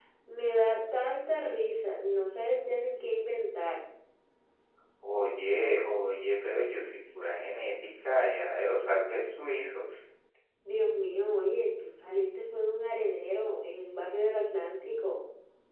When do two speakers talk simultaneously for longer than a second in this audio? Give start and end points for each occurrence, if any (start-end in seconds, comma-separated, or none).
none